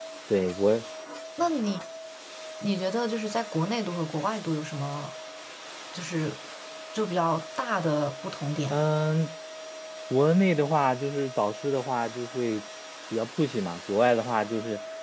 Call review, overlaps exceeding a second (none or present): none